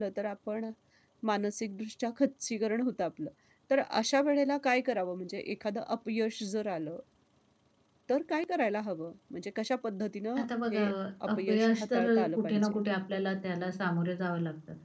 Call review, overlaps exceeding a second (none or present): present